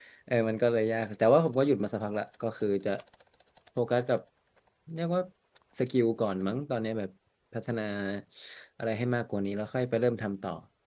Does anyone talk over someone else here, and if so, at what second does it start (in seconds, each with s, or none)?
none